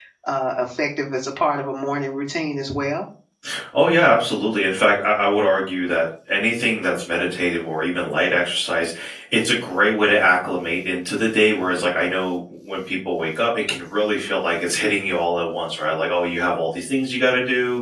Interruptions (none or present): none